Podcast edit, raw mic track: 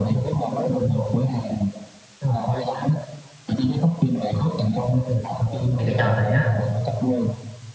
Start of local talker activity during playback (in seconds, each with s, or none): 5.8 s